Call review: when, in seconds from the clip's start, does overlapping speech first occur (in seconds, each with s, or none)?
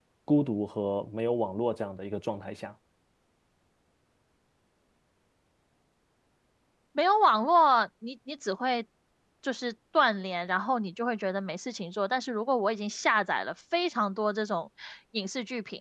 none